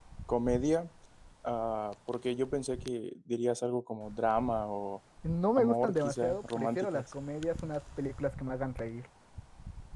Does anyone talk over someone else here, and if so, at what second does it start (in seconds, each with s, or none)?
5.6 s